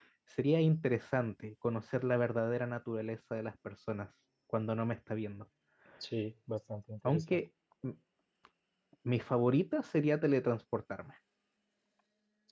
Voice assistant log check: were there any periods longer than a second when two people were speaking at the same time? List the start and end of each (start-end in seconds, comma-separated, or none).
none